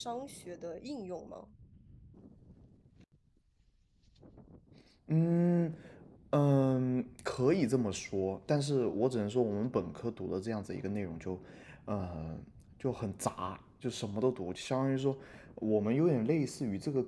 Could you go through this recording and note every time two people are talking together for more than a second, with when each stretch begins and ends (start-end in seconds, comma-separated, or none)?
none